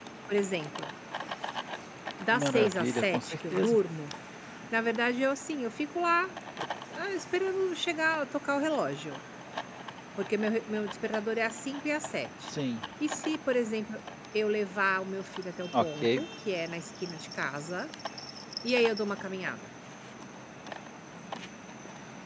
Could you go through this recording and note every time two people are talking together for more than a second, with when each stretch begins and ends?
2.3-3.8

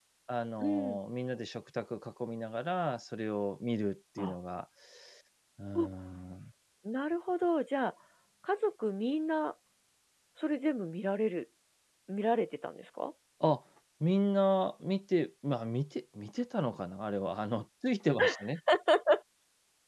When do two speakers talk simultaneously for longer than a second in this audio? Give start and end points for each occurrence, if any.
none

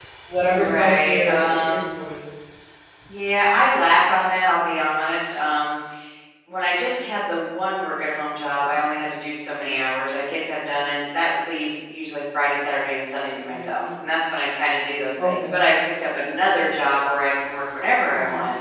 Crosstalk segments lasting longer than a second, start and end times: 0.5-1.8

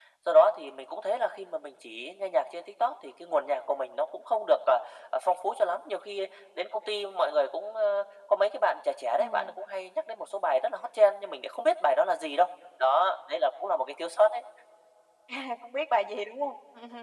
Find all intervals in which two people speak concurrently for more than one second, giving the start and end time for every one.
none

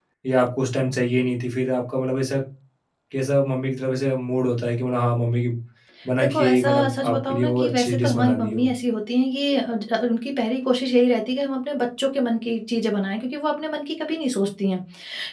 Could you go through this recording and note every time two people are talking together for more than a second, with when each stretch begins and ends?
6.2-8.7

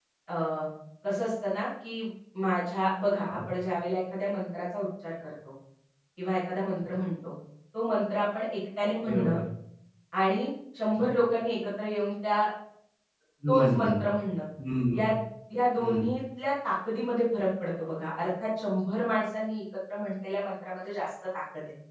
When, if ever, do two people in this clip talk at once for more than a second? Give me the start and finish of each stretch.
none

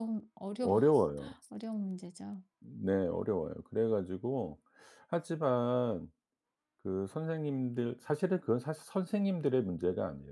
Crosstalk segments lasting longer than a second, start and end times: none

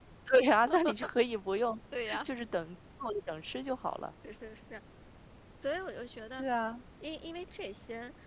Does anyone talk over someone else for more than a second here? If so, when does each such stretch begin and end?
none

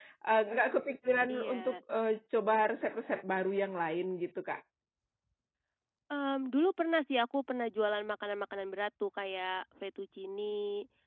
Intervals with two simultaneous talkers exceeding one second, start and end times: none

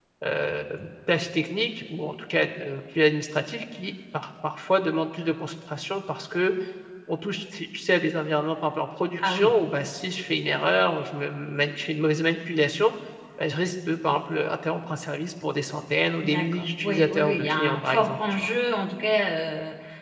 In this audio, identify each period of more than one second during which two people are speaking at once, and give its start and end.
16.2-18.5

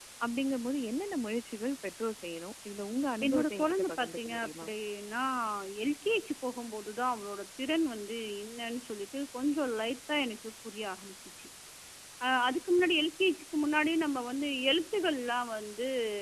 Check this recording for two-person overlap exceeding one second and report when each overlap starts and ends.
3.3-4.7

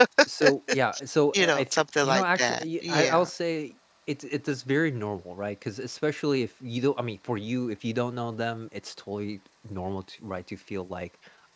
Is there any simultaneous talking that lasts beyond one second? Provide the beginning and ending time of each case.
1.3-3.3

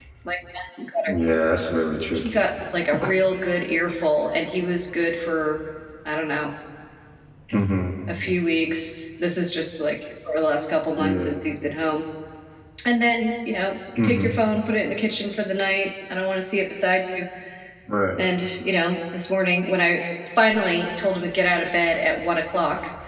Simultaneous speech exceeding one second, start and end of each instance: none

